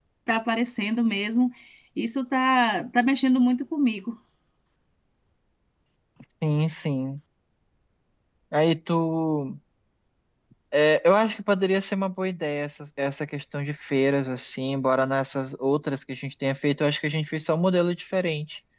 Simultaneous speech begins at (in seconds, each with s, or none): none